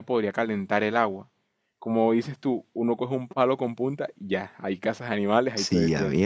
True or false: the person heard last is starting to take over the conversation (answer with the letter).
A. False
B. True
B